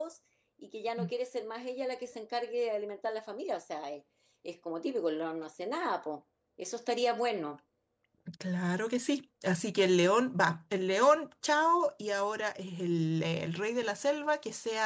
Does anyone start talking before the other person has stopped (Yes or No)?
No